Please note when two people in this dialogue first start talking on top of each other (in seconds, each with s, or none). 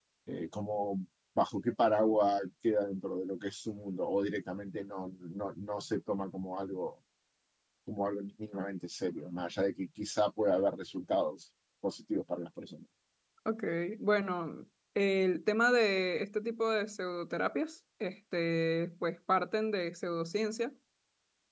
none